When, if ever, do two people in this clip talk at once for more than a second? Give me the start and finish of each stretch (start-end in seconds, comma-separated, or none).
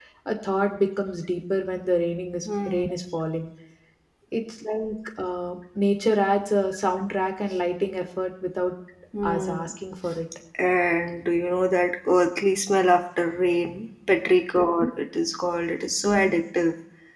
none